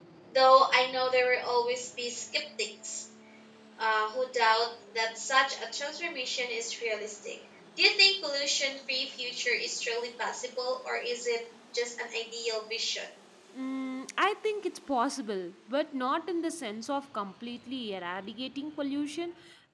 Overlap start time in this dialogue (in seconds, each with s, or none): none